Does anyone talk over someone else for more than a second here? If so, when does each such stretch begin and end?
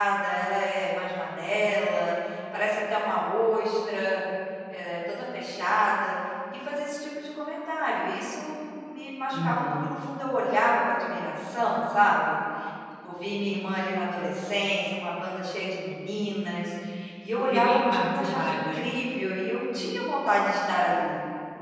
17.4-18.9

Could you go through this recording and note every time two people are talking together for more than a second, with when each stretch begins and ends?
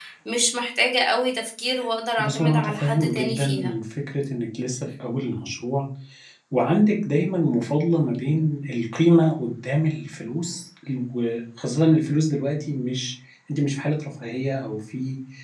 2.2-3.7

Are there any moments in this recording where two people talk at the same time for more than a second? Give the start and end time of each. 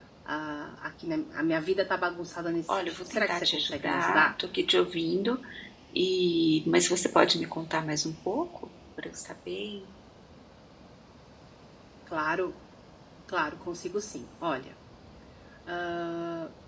2.7-4.3

